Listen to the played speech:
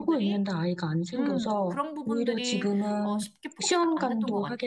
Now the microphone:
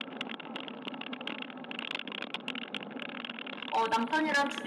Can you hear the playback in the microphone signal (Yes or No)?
No